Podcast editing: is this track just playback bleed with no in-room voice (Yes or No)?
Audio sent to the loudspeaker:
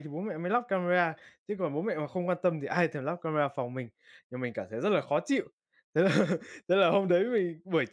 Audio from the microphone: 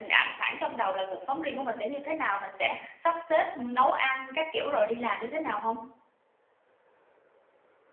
No